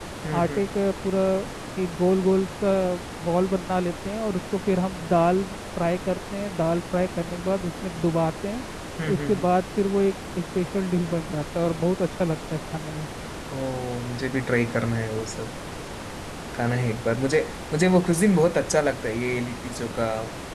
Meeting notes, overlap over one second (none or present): none